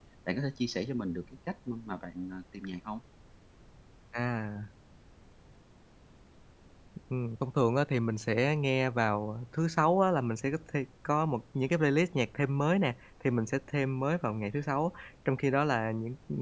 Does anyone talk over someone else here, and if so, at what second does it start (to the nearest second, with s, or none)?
none